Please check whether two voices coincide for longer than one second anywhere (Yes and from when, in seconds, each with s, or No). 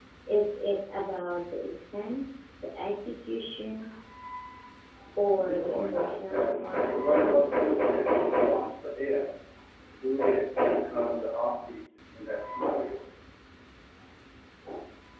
Yes, from 5.4 s